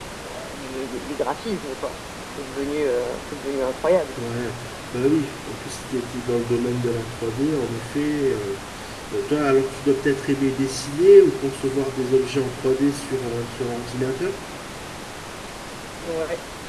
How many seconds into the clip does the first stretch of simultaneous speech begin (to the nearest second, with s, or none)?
none